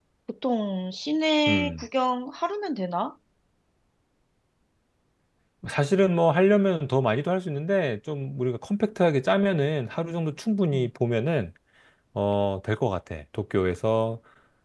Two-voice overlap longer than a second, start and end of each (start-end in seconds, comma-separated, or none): none